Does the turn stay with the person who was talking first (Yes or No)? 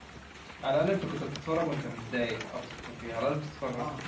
Yes